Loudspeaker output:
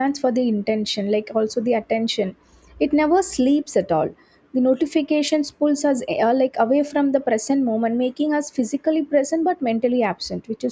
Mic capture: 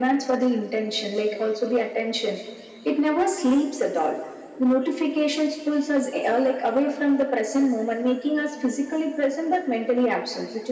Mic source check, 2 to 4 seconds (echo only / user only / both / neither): echo only